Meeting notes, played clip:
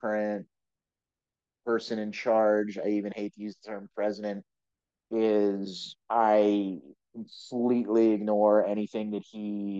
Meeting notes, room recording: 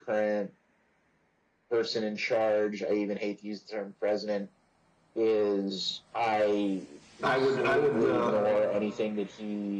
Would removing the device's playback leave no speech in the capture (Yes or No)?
No